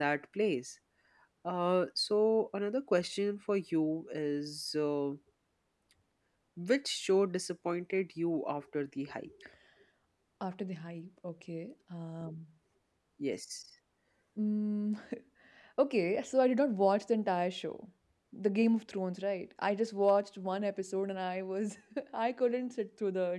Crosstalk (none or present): none